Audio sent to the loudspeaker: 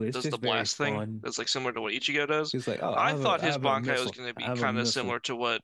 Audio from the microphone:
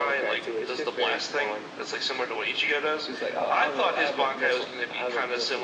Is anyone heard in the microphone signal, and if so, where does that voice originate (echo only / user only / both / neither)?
echo only